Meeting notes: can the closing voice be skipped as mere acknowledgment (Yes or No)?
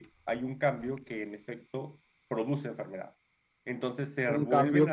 No